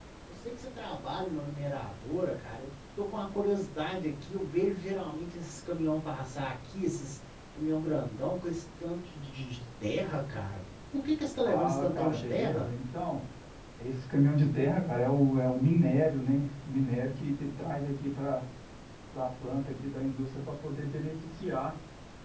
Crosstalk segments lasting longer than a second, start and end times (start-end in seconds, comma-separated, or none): 11.4-12.7